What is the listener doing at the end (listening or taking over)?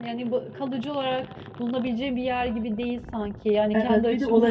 taking over